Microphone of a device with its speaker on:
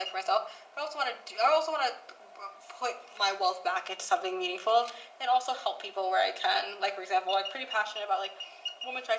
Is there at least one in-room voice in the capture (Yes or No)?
No